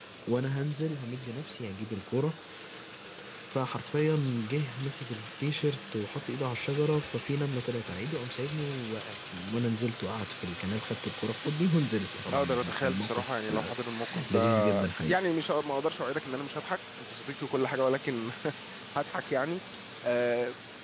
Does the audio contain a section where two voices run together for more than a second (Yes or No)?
Yes